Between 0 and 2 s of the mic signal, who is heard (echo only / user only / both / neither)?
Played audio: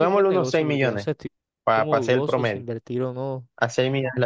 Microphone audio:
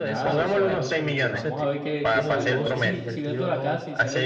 both